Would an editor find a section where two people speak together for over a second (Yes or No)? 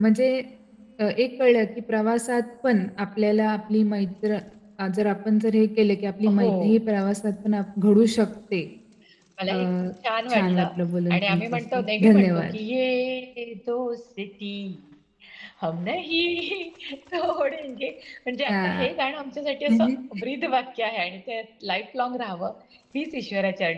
Yes